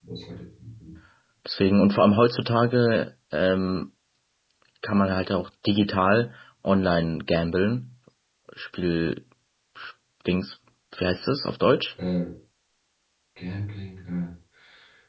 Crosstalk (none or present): none